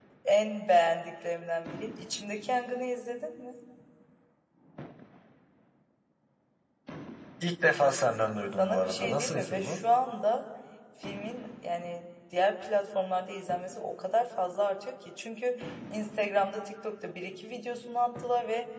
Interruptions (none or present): present